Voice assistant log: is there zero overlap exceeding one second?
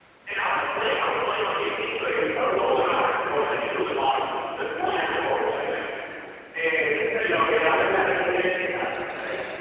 No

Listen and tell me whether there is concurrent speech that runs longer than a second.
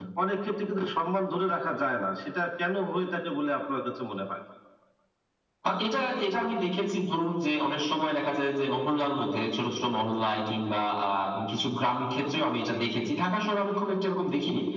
No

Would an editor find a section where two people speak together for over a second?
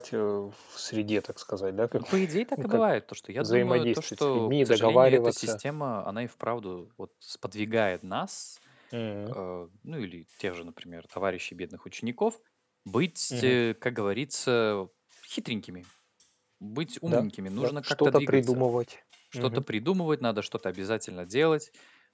Yes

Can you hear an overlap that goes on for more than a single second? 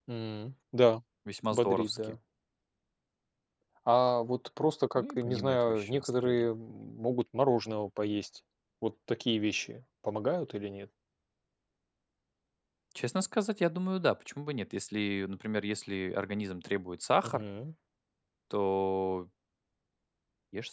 Yes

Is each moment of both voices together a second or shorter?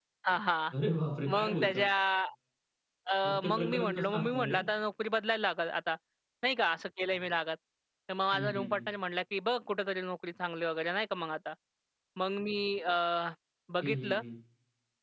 No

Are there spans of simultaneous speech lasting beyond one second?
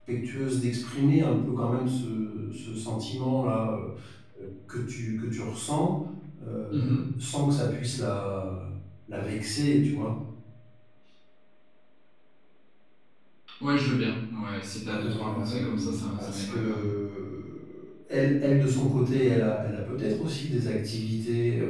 Yes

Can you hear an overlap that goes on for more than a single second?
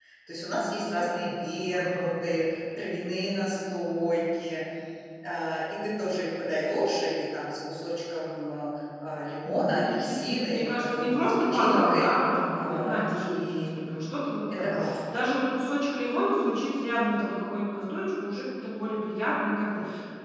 Yes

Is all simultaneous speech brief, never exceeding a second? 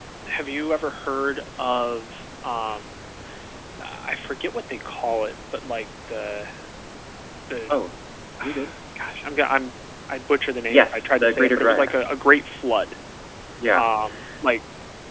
No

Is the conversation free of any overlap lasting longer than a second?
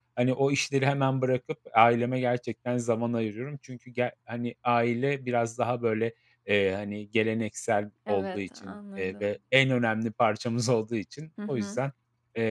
No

